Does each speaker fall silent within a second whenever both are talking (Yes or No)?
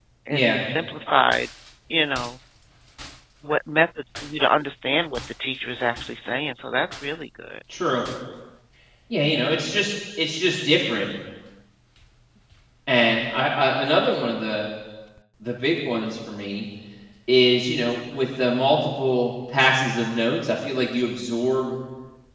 Yes